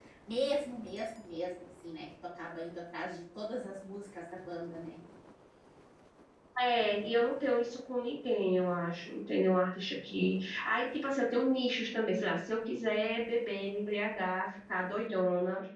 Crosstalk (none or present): none